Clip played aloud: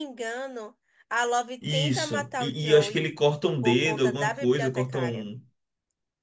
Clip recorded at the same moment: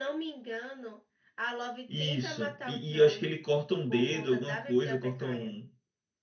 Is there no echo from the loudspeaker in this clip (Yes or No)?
No